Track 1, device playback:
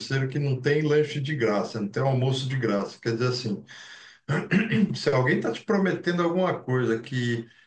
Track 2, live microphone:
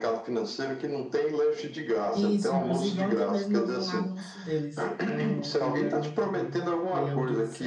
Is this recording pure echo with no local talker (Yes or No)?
No